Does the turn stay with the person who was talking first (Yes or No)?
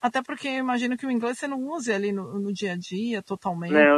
No